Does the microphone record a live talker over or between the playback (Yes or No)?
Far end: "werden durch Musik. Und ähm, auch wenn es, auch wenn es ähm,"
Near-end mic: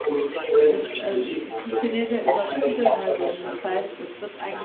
Yes